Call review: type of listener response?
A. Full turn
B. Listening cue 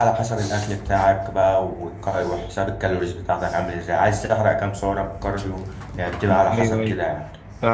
A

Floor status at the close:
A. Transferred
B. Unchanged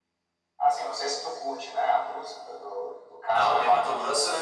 A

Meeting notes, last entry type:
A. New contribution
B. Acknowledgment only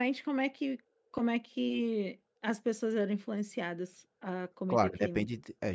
A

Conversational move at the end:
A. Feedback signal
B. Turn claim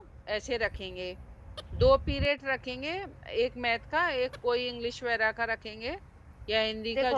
B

